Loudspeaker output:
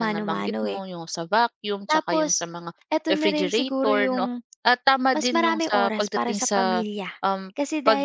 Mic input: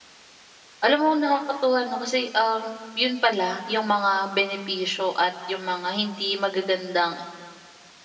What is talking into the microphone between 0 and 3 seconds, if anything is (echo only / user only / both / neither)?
user only